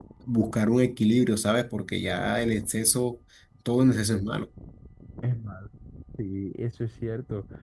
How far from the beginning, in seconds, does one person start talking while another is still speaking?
none

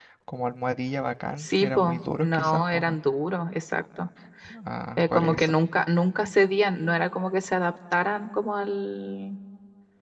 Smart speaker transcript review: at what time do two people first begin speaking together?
1 s

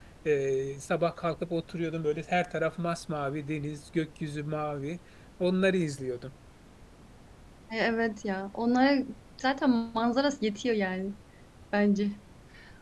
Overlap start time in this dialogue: none

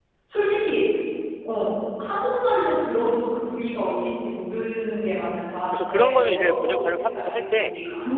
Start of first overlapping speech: 6 s

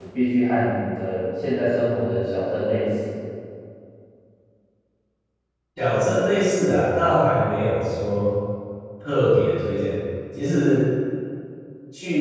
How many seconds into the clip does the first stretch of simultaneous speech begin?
none

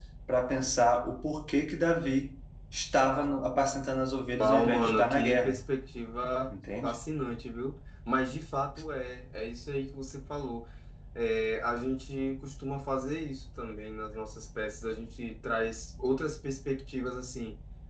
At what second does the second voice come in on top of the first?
4 s

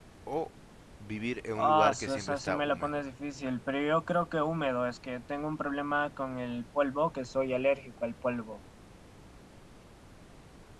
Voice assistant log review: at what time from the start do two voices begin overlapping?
2 s

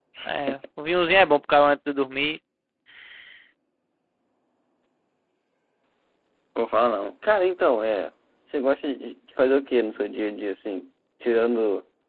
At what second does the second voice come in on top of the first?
none

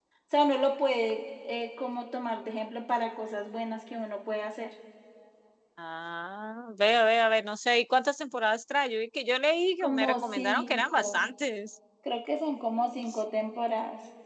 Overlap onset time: 10 s

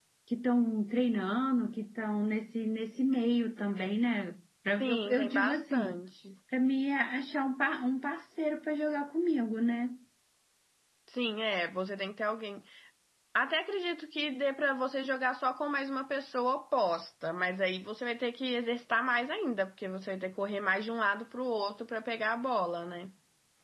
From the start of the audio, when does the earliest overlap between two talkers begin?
5 s

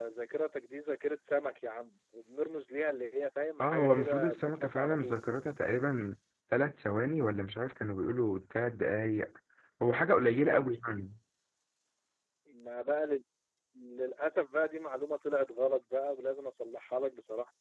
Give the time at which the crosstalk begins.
4 s

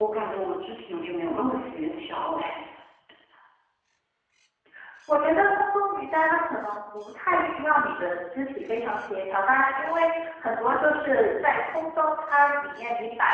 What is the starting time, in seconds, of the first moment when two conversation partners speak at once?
none

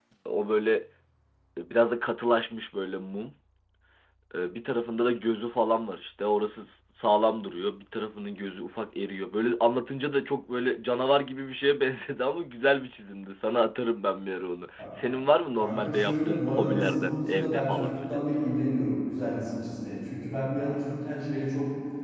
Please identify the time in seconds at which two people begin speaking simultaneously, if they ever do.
16 s

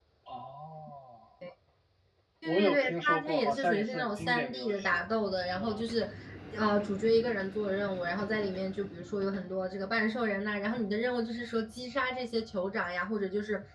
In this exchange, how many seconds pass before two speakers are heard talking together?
2 s

